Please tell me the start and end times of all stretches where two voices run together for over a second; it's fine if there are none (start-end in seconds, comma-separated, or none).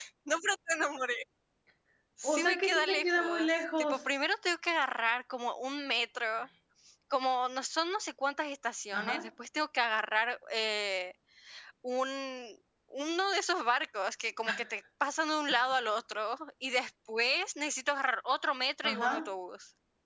2.2-4.0